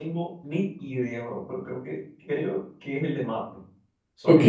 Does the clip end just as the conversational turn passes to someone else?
Yes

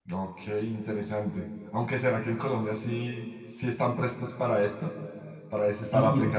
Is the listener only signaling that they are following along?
No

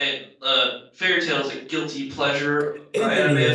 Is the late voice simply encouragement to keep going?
No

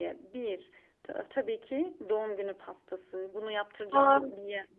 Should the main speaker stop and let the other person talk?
No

